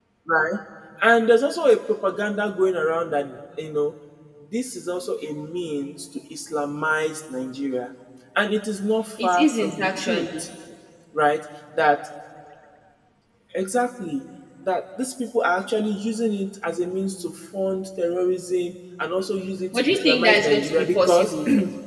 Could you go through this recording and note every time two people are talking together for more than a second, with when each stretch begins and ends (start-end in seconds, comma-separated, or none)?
9.2-10.4, 19.7-21.3